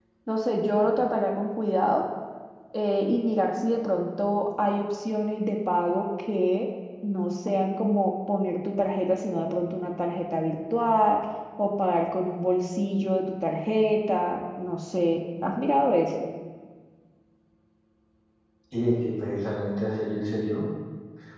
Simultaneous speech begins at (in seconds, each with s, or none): none